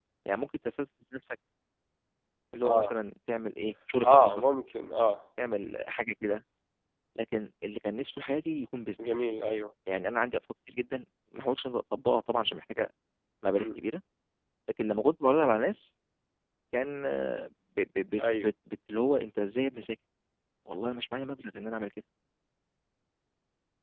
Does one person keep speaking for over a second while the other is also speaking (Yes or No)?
No